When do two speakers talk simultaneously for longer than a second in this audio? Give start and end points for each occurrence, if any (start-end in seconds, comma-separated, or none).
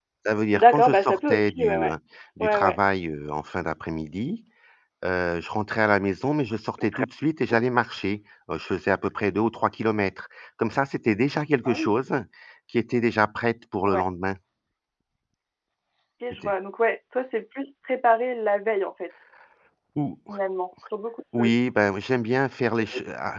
0.6-1.9